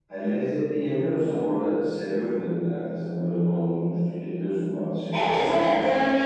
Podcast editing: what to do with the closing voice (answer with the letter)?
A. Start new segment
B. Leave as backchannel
A